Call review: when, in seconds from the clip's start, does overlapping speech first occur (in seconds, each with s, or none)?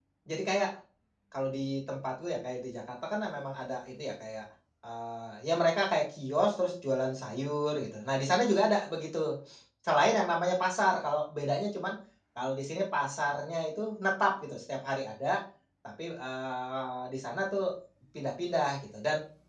none